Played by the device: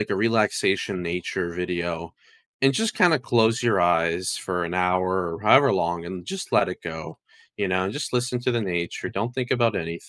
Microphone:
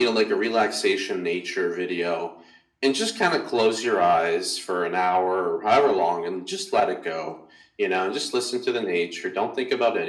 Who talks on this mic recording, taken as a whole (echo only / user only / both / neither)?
echo only